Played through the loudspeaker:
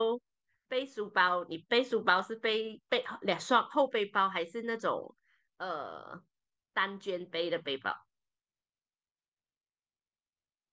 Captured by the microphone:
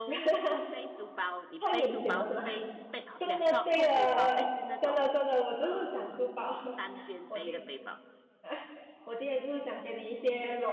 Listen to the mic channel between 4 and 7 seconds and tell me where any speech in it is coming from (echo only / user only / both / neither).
both